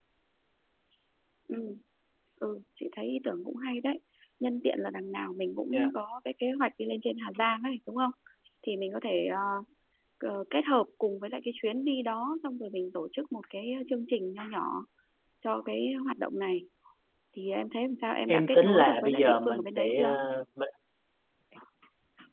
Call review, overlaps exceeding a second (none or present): present